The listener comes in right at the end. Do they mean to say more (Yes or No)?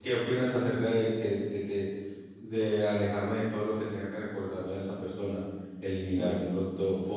No